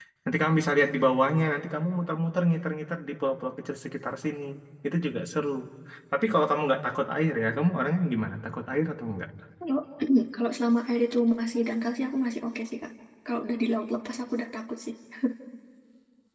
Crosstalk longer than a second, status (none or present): none